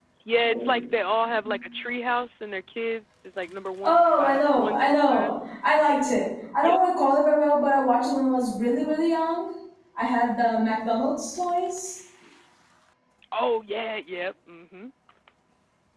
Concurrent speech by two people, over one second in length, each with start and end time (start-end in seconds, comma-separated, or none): 3.8-5.3